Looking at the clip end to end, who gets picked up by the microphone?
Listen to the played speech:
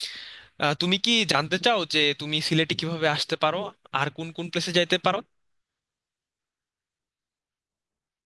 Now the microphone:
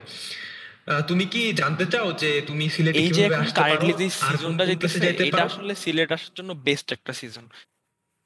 both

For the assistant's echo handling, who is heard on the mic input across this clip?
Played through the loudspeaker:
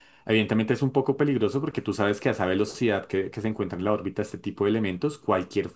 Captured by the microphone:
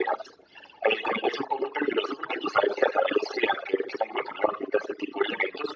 echo only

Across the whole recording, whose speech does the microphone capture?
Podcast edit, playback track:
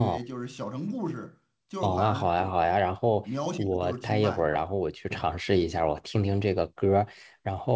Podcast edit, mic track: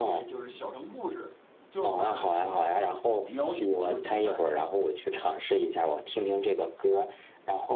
echo only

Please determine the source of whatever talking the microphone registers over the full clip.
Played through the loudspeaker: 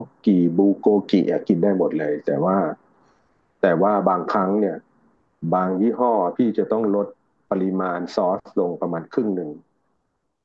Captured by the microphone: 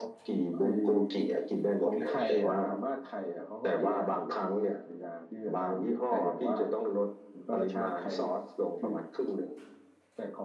both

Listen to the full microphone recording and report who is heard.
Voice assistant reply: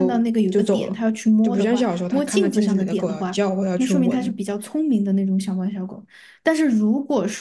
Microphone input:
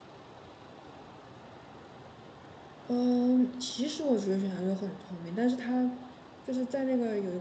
user only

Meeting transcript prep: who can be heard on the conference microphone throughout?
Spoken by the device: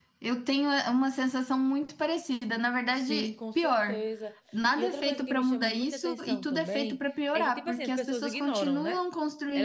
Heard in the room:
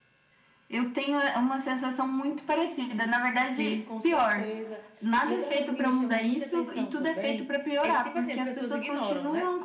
echo only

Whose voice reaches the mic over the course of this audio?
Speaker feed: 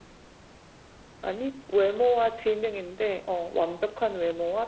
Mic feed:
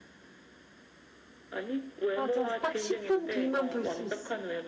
both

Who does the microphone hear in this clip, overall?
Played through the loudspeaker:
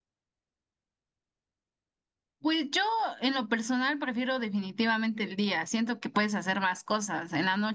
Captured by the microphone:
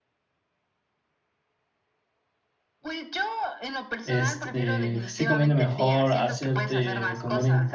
both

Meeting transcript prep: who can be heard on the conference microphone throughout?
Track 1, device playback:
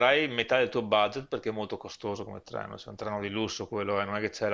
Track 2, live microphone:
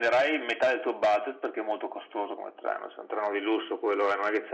echo only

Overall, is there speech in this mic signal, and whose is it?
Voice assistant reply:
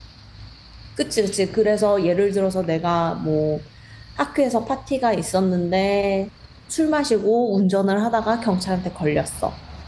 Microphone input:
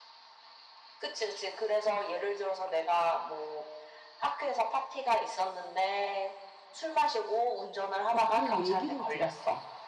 both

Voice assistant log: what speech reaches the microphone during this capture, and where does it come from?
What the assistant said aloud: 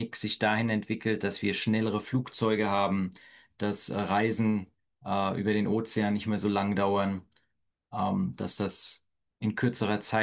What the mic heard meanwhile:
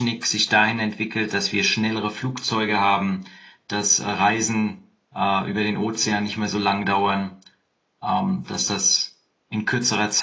echo only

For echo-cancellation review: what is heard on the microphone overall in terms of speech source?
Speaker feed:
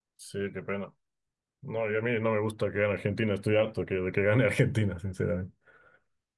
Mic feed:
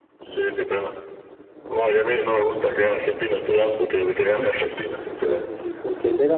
both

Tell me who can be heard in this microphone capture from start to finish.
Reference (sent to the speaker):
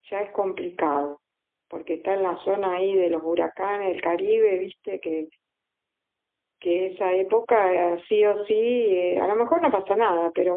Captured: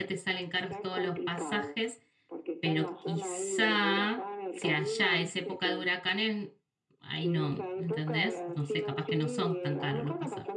both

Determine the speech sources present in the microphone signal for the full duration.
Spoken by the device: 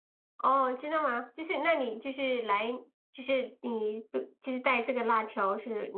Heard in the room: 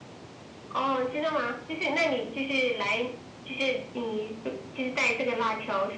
echo only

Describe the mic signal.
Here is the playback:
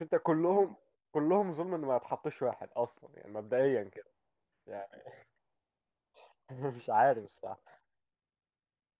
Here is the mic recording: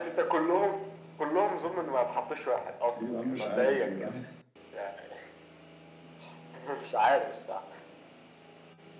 both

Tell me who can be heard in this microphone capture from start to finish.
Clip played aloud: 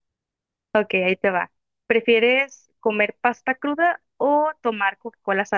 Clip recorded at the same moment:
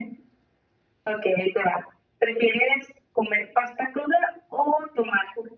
echo only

